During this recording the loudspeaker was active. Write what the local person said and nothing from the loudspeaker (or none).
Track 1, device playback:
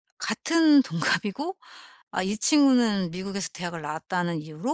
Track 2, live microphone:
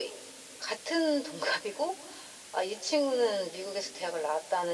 none